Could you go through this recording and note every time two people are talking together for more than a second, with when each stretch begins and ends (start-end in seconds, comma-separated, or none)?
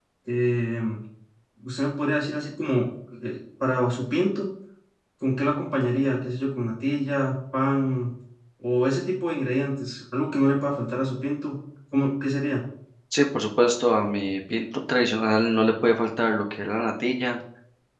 none